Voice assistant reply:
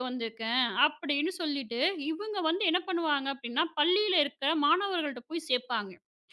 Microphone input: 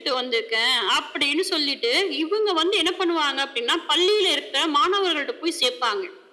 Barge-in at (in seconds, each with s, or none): none